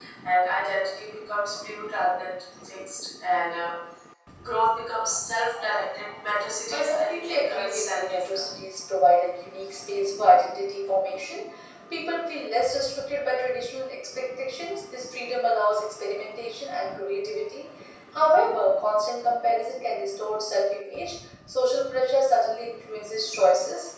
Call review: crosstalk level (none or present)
present